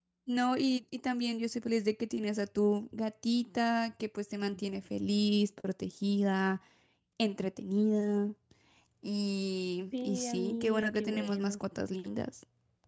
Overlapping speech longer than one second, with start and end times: 10.0-11.6

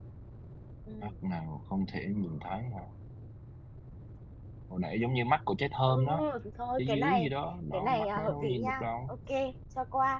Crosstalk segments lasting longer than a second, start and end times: 7.7-9.1

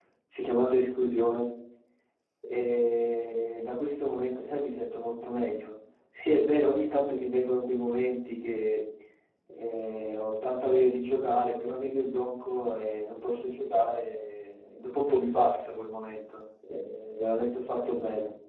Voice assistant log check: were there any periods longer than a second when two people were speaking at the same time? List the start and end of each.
none

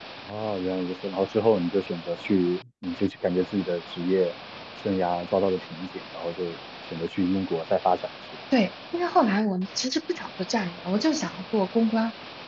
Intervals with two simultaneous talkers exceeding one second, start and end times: none

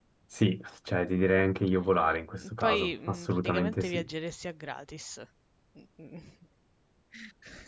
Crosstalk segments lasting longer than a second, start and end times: 2.4-4.1

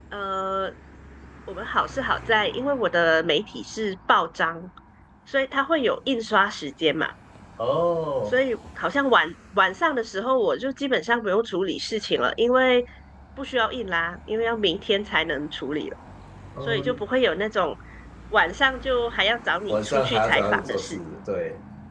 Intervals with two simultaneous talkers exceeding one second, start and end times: 19.7-21.0

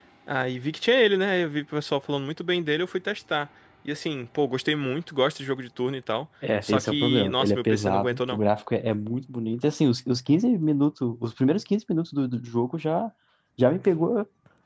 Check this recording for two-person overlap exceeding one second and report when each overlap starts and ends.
6.6-8.4

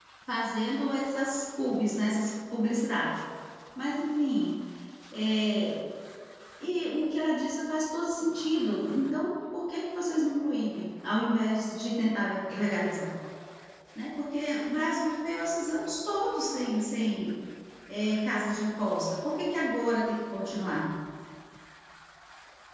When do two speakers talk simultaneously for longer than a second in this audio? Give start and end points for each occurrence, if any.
none

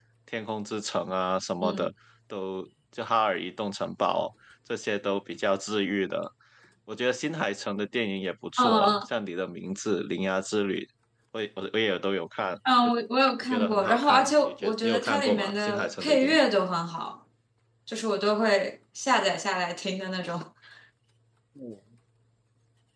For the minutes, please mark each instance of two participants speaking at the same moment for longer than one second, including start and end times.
13.4-16.4

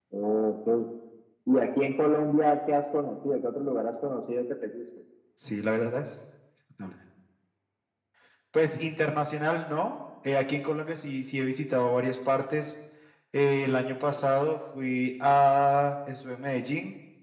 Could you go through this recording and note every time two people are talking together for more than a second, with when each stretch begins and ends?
none

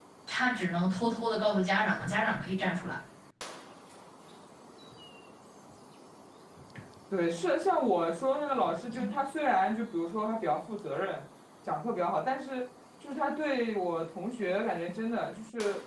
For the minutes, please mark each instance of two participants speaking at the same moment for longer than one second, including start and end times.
none

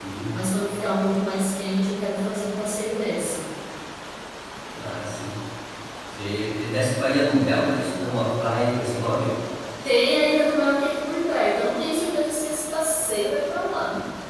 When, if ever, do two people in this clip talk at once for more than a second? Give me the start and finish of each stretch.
none

